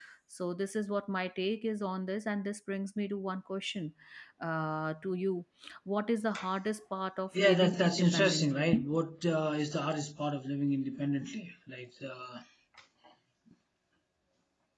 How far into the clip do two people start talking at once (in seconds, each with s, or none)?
7.4 s